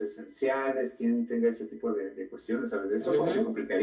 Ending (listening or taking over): taking over